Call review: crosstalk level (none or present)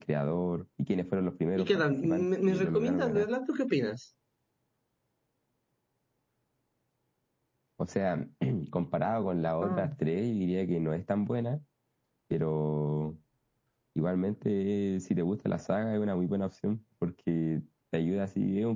present